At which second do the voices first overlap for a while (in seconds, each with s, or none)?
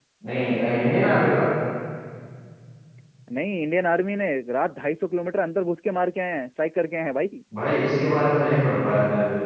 none